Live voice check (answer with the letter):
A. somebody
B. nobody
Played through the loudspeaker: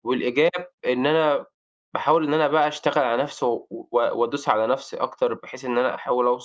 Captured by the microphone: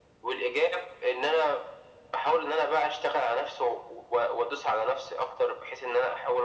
B